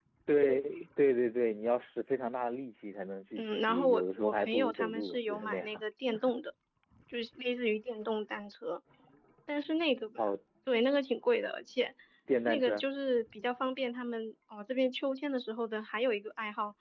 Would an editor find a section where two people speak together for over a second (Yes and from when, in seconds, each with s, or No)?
Yes, from 3.3 s